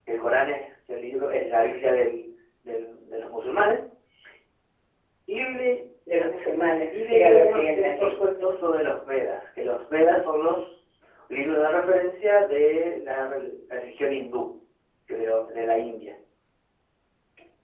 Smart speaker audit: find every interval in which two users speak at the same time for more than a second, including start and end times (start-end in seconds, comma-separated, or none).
6.9-8.1